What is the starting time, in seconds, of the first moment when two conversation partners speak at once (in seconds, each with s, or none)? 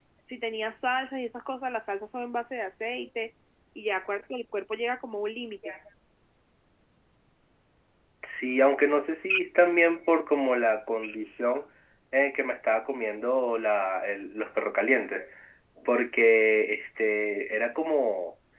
none